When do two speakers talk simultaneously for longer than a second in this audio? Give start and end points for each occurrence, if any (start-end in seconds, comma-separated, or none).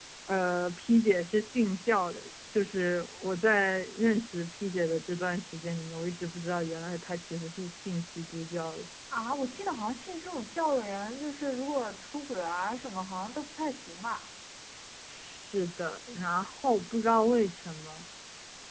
none